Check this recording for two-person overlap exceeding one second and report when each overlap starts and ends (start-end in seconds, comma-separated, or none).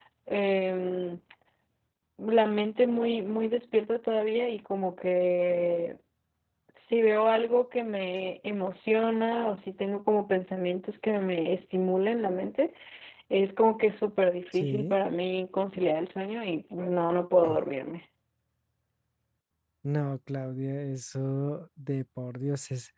none